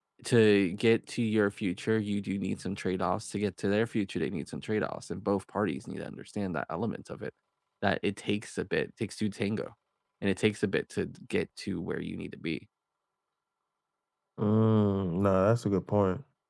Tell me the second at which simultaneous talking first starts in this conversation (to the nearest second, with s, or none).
none